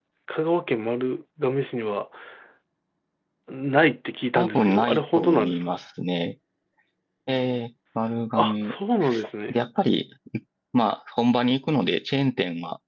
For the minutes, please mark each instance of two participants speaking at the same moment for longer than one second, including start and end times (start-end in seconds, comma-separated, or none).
4.4-5.7